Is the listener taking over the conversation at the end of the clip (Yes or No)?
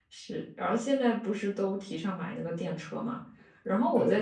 No